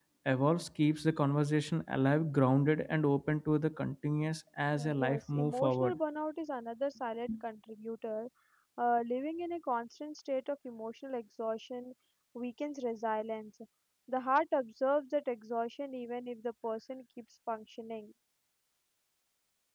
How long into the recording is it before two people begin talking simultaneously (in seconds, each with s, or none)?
4.8 s